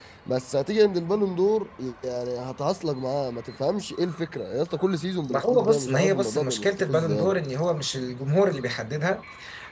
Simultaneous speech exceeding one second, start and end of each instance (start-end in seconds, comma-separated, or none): 5.3-7.3